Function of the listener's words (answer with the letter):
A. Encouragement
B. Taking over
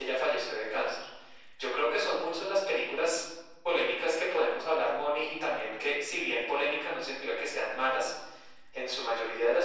A